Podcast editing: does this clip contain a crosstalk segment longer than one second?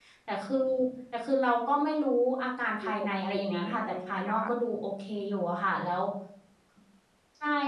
Yes, from 2.8 s

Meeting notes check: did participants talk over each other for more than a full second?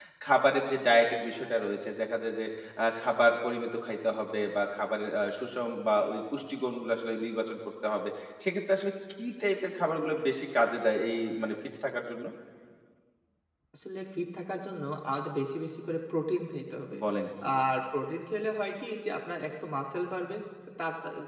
No

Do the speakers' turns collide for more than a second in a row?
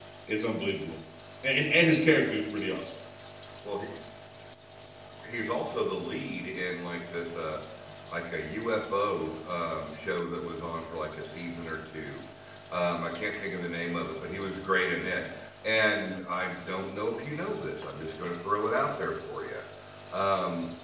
No

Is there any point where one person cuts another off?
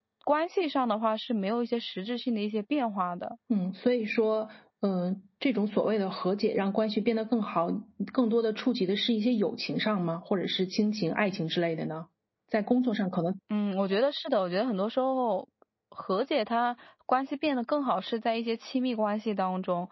No

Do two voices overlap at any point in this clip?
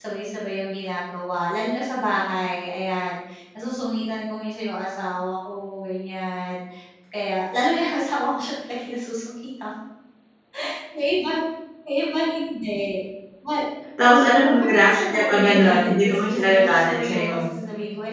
Yes, from 14.6 s

